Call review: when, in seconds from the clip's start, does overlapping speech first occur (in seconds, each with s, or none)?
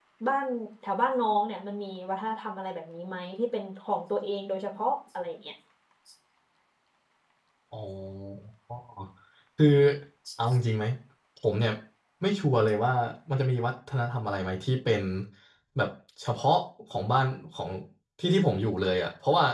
none